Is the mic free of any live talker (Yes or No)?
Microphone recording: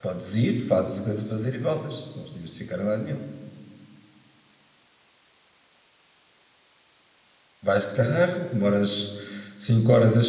No